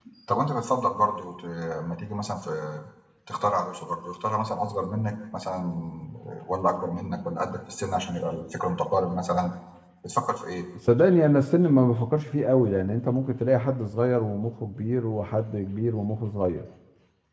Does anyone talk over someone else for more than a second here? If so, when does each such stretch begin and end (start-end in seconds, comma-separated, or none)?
none